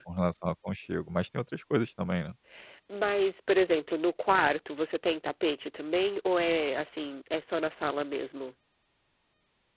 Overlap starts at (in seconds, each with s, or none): none